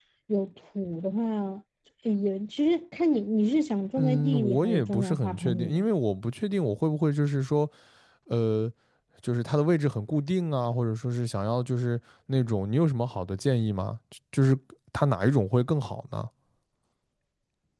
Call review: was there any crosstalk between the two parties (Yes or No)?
Yes